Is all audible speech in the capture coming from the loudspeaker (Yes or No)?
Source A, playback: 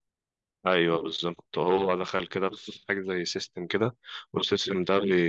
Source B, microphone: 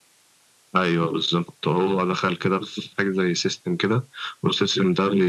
Yes